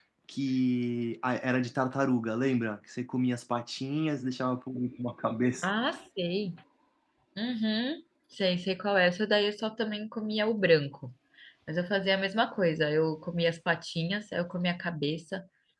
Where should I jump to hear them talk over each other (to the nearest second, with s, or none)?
none